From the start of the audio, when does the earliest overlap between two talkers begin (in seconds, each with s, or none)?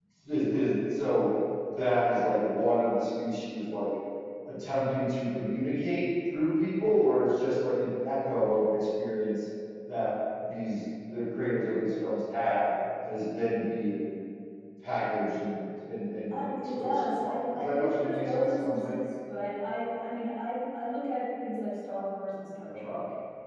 16.6 s